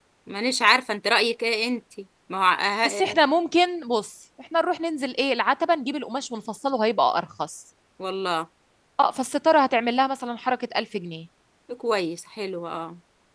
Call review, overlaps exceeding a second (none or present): none